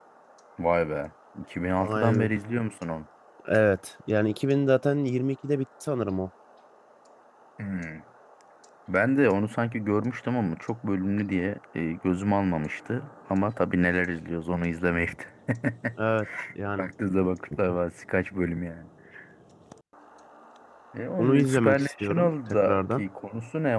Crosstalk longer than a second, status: present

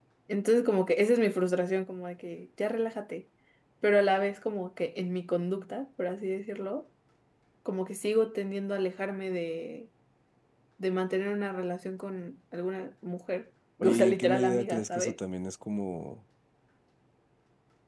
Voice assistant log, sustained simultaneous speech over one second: present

